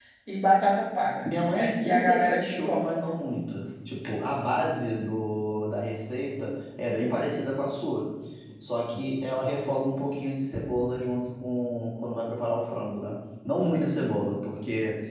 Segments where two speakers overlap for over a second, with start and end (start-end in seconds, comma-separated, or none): 1.2-2.9